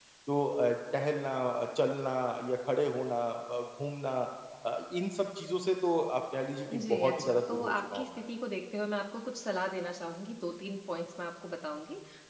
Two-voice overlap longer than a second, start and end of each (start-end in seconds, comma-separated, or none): 6.7-8.1